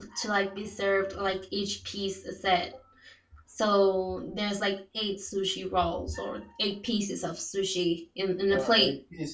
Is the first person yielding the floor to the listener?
Yes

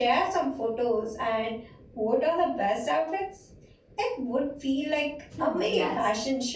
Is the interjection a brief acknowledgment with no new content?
No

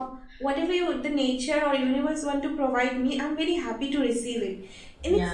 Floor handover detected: No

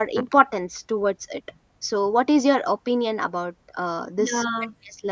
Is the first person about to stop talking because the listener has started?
Yes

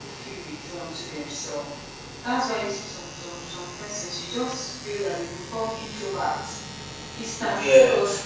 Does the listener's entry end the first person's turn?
No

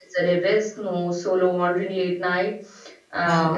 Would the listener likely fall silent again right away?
Yes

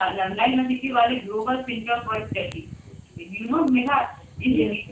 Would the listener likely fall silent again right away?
Yes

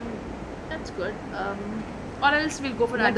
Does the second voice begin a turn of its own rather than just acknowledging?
Yes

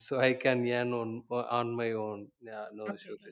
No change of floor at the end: No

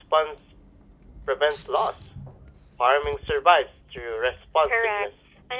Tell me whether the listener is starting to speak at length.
Yes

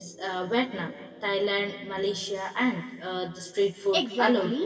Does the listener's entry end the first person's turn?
Yes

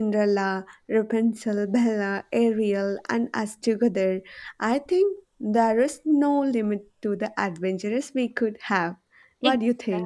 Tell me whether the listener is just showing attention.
No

